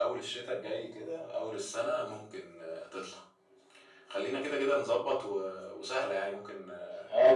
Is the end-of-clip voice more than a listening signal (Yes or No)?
Yes